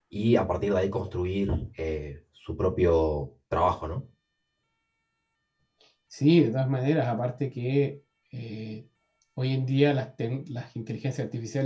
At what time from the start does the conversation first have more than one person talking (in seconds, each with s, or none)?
none